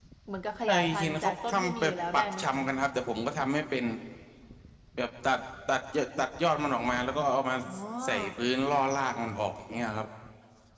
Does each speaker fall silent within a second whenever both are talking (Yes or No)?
No